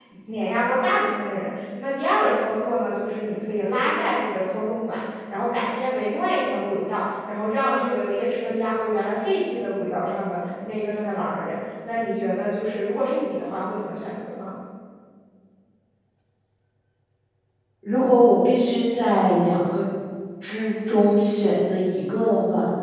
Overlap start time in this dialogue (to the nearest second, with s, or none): none